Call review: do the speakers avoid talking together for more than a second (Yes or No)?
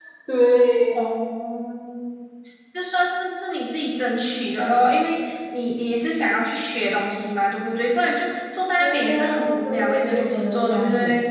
No